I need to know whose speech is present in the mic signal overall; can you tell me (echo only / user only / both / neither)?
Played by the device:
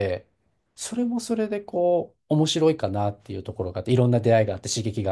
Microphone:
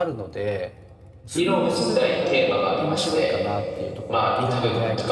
both